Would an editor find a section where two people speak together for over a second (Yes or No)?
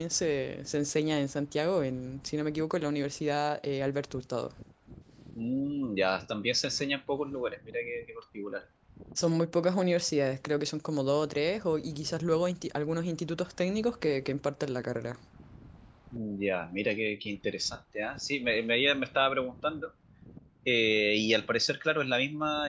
No